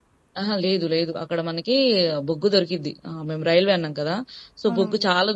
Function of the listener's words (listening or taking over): listening